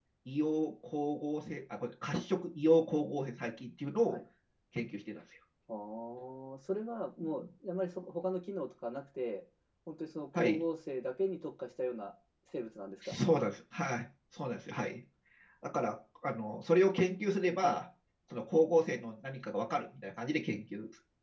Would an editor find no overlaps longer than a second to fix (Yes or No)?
Yes